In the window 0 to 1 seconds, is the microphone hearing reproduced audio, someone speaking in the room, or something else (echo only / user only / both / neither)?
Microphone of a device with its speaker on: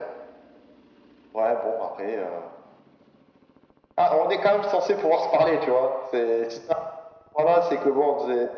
neither